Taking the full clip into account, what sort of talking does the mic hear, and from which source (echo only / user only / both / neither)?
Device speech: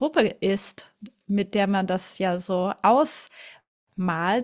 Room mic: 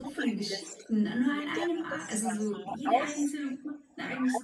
both